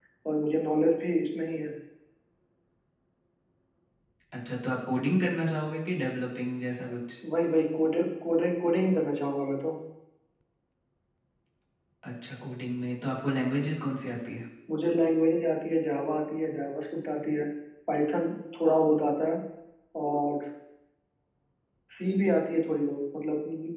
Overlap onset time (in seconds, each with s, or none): none